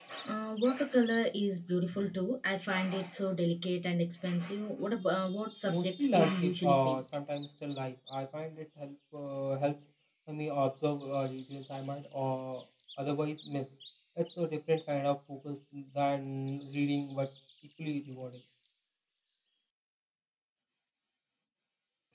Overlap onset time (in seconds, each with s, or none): 5.7 s